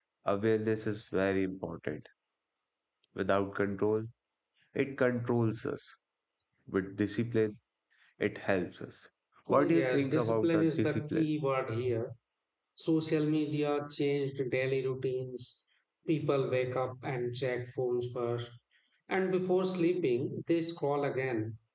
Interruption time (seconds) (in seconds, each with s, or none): 9.5 s